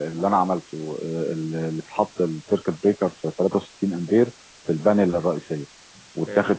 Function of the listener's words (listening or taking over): listening